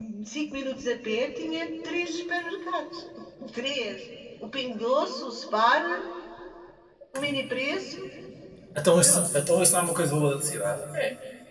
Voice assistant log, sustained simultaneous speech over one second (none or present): none